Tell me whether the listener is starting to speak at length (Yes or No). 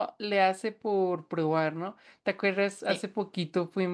No